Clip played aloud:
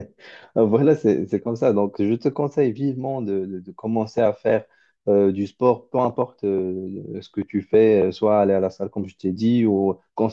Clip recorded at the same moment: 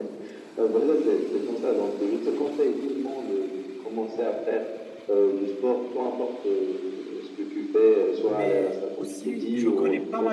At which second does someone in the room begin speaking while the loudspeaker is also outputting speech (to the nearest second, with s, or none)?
8 s